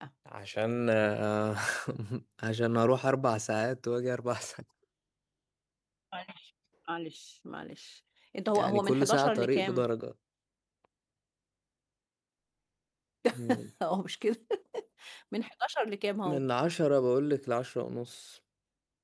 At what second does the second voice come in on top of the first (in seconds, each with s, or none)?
8.6 s